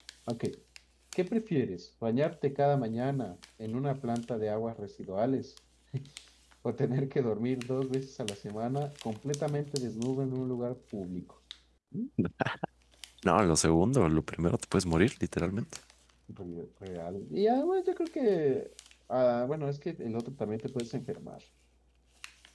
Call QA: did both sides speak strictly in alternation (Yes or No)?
Yes